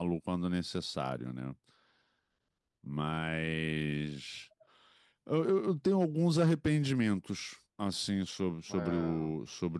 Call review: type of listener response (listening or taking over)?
listening